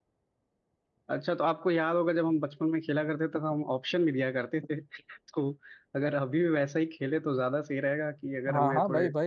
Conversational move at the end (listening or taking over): taking over